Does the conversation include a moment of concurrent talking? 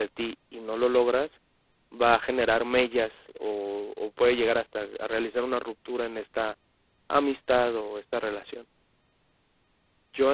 No

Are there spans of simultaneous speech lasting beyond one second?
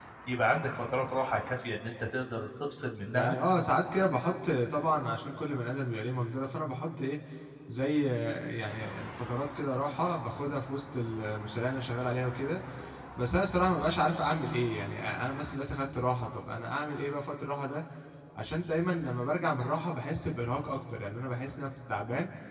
No

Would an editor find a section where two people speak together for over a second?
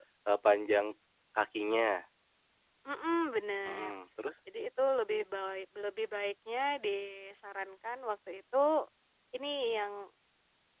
No

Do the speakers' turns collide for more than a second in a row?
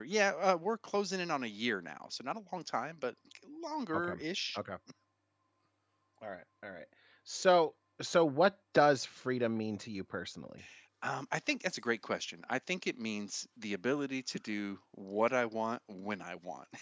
No

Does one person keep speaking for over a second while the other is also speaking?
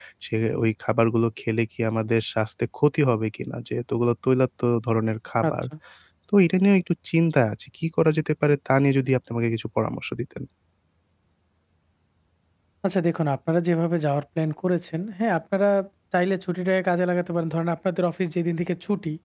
No

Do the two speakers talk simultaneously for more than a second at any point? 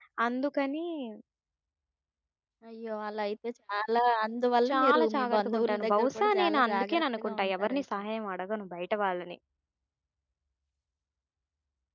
Yes, from 4.7 s

